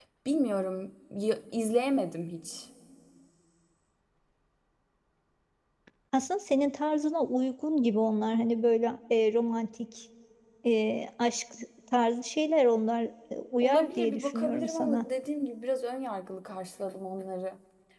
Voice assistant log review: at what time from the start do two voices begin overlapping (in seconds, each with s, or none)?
13.6 s